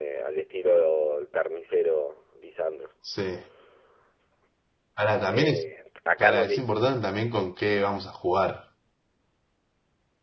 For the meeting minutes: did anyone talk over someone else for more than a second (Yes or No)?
No